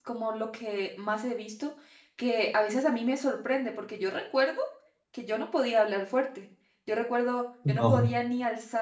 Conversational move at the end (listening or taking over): listening